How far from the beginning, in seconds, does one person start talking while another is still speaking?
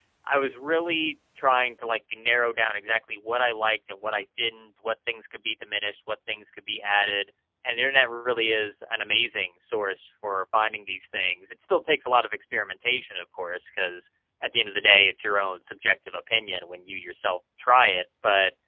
none

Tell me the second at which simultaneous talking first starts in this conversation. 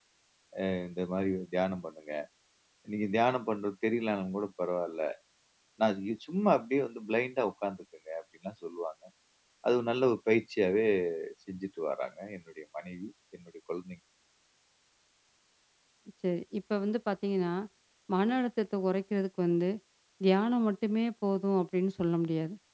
none

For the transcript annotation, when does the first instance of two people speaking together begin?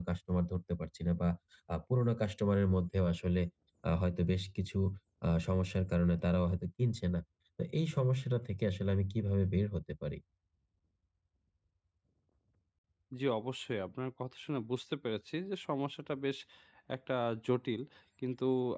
none

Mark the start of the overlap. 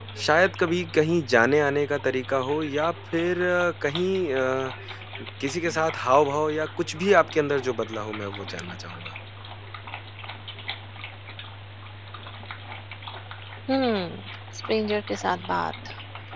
none

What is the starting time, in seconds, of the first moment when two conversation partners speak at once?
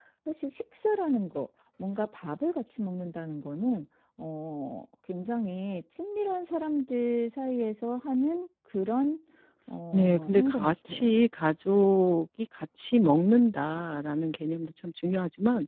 9.9 s

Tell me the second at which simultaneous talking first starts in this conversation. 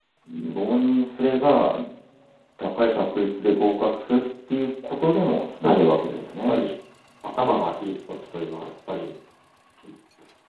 5.4 s

